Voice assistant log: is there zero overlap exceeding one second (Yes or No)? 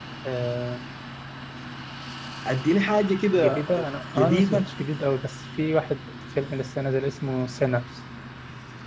Yes